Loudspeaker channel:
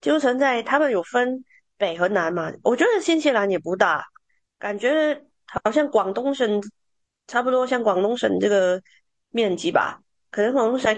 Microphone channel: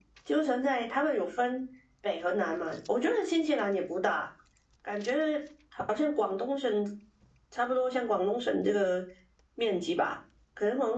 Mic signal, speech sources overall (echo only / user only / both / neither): echo only